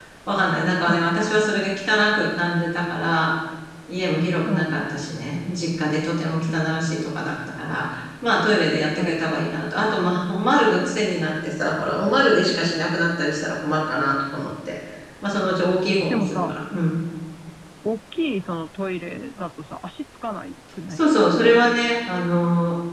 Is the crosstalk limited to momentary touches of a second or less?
Yes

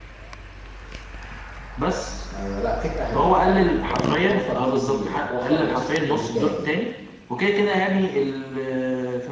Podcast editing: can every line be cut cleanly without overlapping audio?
No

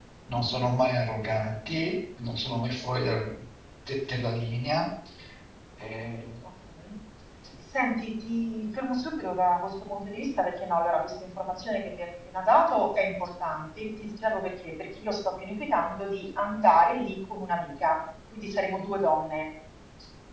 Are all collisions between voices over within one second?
Yes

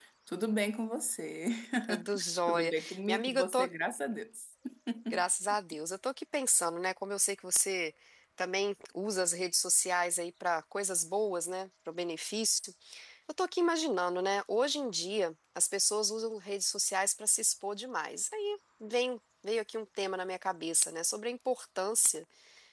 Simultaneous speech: Yes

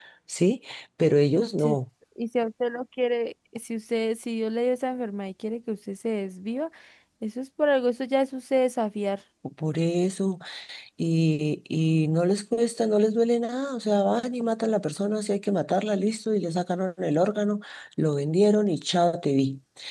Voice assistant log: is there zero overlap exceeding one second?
Yes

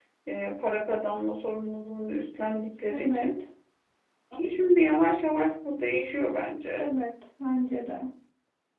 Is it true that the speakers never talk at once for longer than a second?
Yes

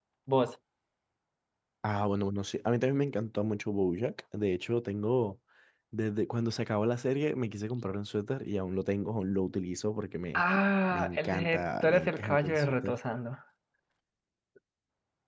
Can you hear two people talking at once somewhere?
Yes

